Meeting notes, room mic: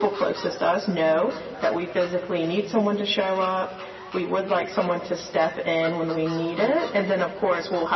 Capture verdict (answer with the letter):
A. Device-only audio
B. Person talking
A